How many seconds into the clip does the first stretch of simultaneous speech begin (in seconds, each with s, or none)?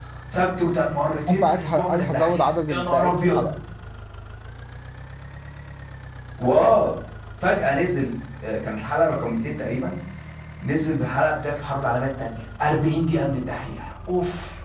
1.3 s